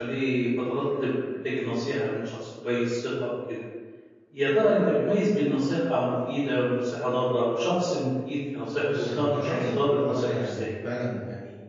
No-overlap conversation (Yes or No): No